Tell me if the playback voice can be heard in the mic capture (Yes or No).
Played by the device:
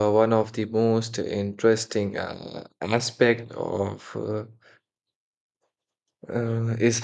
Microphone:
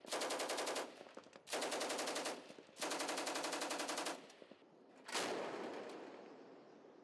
No